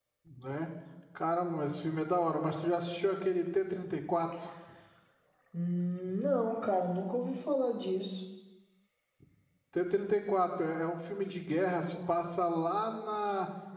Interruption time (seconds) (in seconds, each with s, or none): none